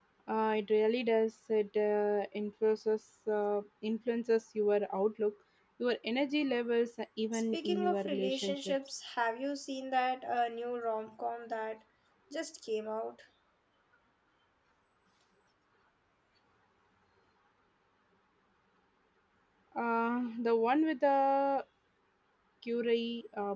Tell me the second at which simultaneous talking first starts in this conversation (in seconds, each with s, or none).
7.3 s